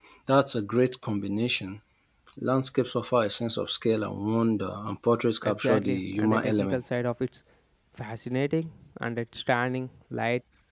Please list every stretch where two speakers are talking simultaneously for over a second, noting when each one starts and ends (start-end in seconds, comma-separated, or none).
5.4-6.8